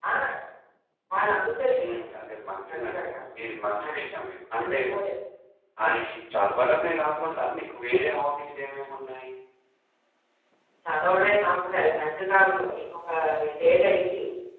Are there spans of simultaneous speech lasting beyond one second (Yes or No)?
No